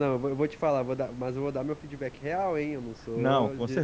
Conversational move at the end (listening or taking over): taking over